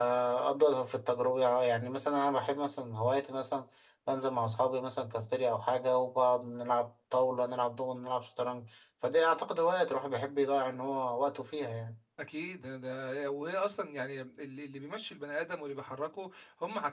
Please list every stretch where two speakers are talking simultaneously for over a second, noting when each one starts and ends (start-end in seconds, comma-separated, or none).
none